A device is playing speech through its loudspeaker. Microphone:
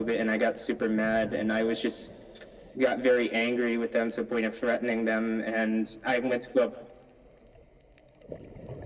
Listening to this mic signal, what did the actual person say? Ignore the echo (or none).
none